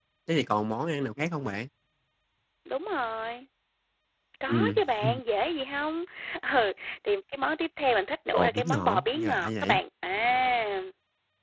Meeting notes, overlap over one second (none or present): present